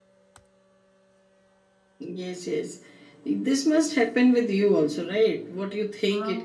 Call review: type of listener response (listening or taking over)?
taking over